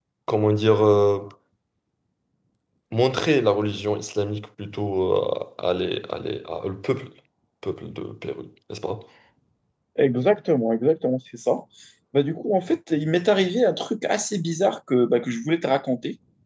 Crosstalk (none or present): none